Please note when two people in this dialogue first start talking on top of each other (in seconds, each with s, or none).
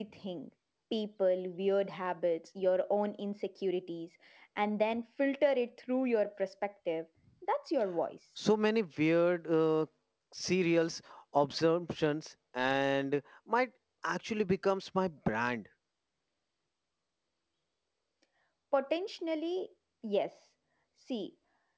none